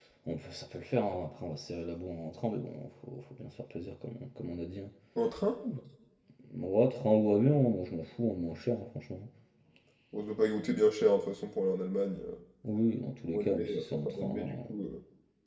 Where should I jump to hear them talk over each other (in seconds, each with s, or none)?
13.3 s